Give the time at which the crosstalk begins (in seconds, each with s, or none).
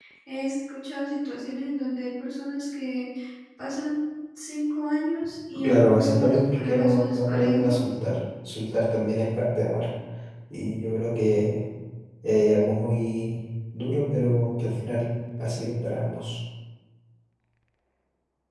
5.6 s